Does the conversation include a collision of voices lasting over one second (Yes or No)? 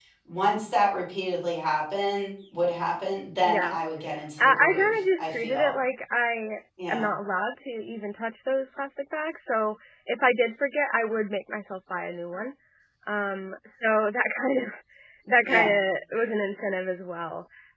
Yes